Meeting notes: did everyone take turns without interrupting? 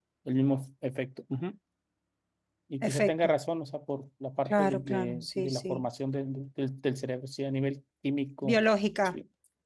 No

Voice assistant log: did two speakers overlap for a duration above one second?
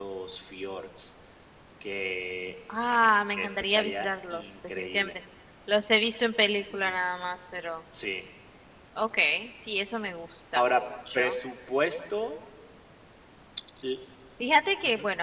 Yes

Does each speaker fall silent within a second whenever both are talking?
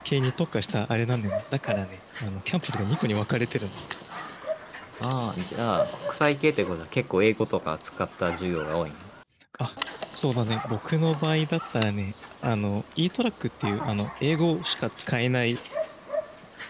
Yes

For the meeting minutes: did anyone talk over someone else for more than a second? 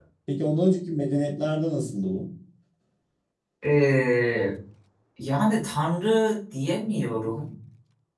No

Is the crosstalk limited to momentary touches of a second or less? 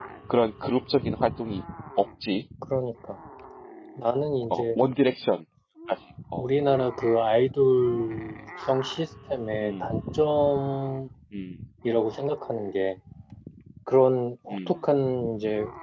Yes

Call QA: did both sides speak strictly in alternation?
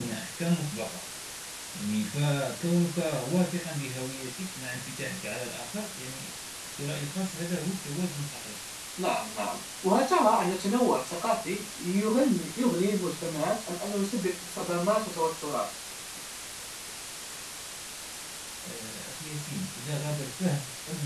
Yes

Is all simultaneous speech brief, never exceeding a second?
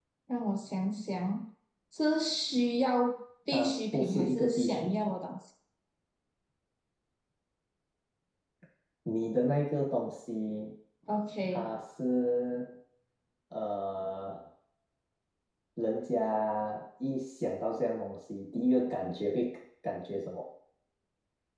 No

